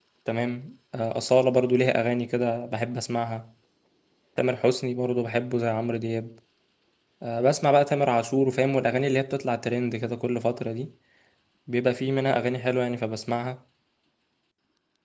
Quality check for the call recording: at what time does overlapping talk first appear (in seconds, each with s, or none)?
none